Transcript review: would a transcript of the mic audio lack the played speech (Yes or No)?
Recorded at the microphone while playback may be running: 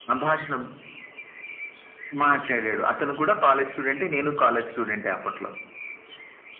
No